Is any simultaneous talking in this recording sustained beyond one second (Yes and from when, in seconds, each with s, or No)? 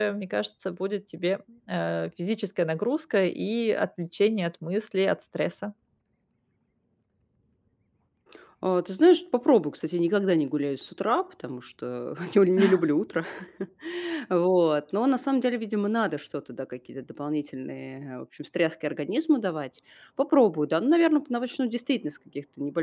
No